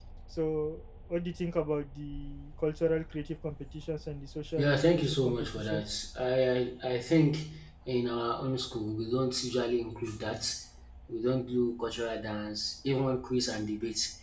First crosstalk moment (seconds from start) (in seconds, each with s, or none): 4.6 s